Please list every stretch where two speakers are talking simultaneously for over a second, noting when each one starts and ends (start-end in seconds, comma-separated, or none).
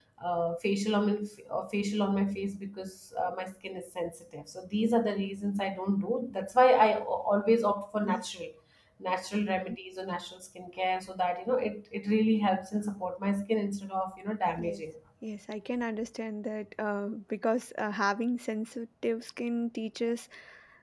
none